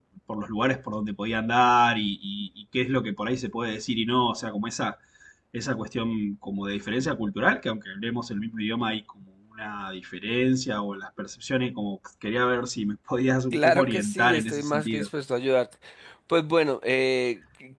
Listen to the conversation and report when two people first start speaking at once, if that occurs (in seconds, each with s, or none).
13.5 s